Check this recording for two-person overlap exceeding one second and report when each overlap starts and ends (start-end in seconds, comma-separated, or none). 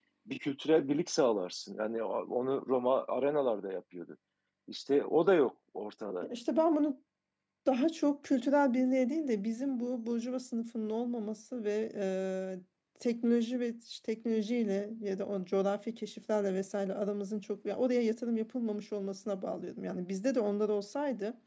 none